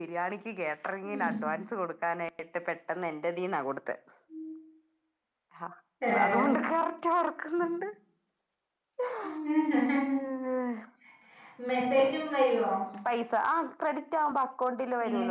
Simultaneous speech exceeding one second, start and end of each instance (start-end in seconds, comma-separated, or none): none